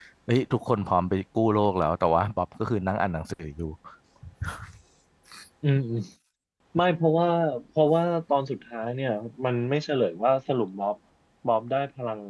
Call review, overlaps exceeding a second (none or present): none